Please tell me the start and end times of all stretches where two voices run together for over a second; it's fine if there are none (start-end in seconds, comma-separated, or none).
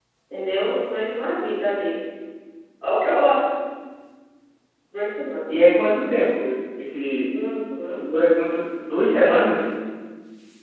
none